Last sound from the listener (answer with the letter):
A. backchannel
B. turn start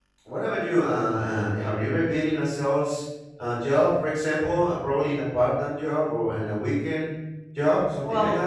B